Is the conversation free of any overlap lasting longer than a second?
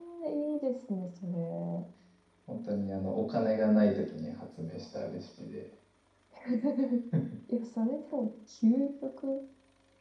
Yes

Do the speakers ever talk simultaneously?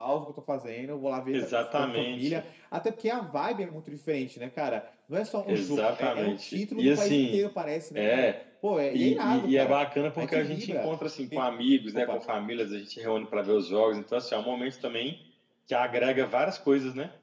Yes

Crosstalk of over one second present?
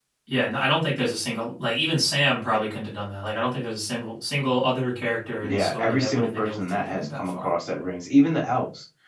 Yes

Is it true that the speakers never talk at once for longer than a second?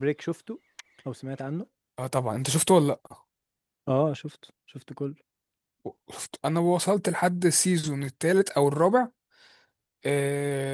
Yes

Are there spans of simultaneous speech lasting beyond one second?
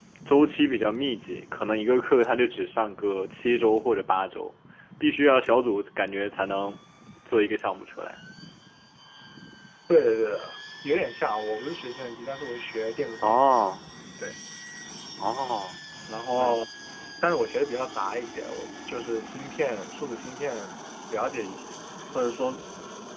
No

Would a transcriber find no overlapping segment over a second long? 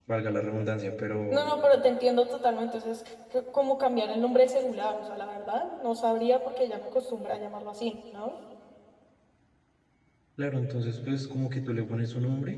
Yes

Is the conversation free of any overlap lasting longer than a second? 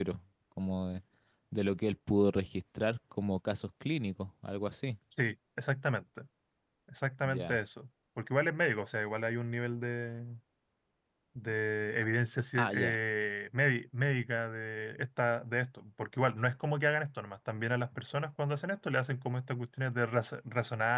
Yes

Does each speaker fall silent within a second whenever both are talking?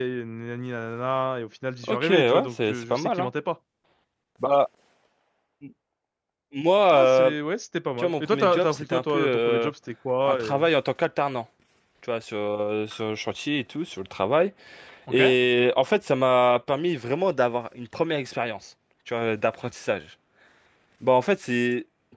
No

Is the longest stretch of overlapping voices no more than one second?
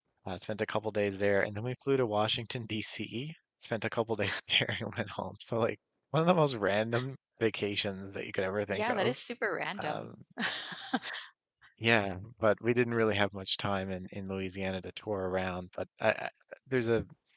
Yes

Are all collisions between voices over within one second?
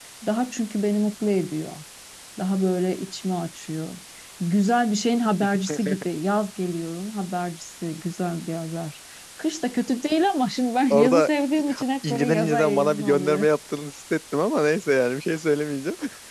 No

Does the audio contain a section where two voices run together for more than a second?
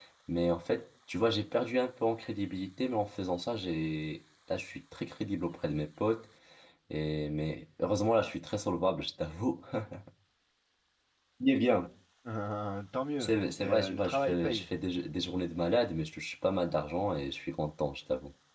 Yes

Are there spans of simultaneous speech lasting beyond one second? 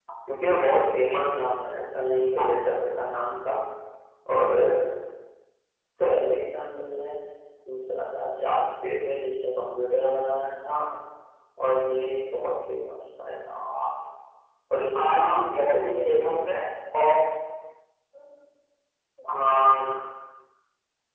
Yes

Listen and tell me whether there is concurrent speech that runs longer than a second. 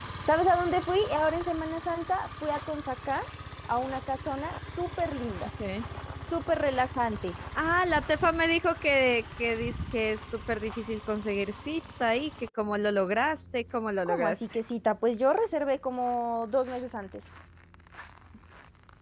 No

